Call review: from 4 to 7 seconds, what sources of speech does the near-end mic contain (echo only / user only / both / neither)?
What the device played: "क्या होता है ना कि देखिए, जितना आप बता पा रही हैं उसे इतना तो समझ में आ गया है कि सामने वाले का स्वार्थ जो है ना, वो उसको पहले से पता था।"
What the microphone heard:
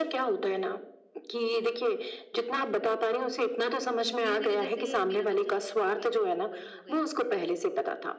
both